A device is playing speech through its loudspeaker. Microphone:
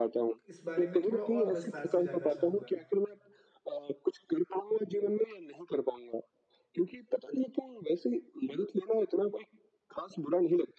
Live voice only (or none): इस बारे में थोड़ा और विस्तार से जानना चाहूँगा।